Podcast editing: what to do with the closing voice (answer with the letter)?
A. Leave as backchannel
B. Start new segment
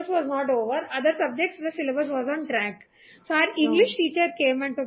A